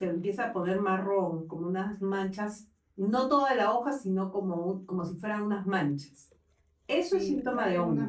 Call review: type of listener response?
taking over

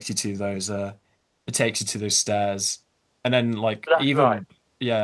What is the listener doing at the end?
listening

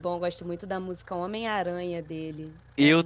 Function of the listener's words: taking over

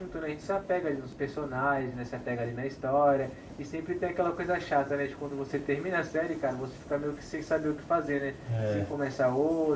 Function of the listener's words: listening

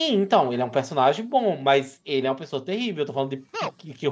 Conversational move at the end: taking over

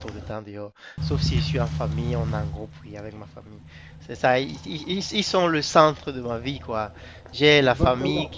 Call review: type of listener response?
listening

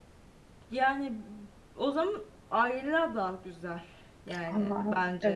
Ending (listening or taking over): taking over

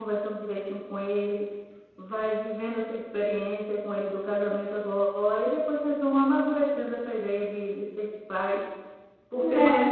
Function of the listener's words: listening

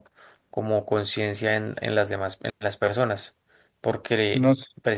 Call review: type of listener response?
listening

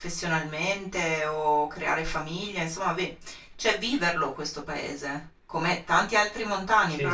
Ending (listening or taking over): listening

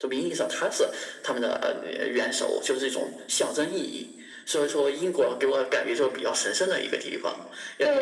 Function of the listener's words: taking over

